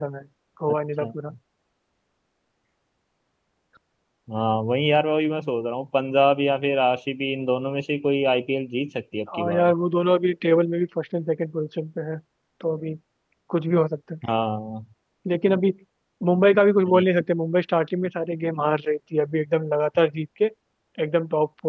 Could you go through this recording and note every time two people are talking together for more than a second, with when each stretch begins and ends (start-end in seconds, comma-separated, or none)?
none